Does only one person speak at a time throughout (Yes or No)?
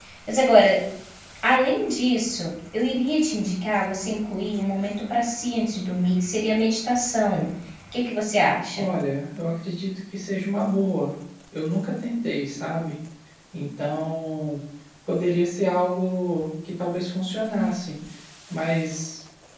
Yes